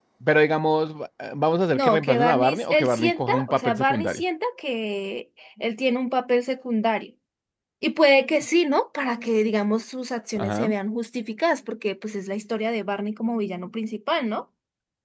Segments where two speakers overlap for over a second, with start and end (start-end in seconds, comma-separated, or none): 1.7-4.2